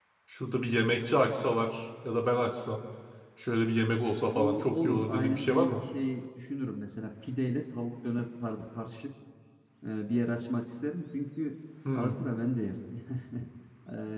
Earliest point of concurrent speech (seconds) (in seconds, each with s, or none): 4.2 s